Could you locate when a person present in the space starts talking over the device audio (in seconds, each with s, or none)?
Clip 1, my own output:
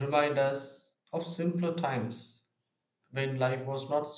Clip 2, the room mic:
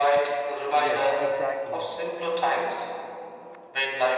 0.7 s